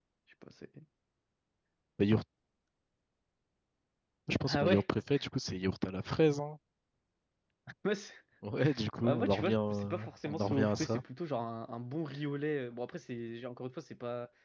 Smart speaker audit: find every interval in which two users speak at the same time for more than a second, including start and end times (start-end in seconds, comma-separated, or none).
9.0-11.0